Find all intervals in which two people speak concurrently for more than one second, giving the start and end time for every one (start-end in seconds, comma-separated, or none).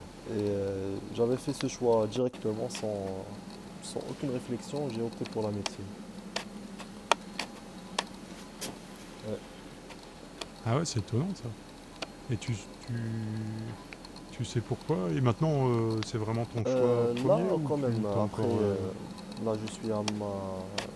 16.6-18.9